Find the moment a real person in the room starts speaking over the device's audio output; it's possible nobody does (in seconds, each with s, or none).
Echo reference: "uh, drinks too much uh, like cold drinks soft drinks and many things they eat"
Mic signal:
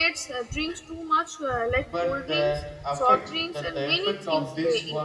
1.9 s